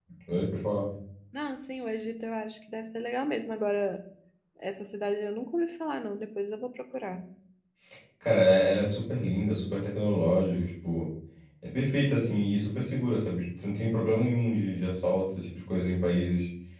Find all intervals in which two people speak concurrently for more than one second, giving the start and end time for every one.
none

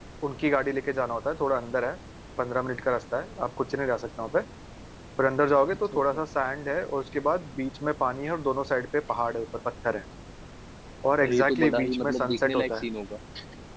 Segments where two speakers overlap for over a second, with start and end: 11.2-12.8

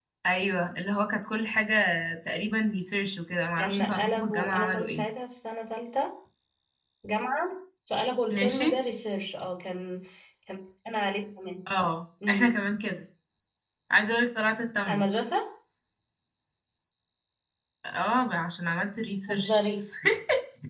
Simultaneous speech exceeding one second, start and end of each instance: 3.6-5.0

